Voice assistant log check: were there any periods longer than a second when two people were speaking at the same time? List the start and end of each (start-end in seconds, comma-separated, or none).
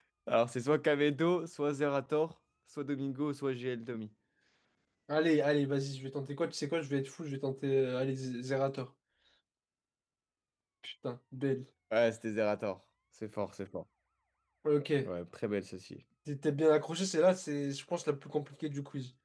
none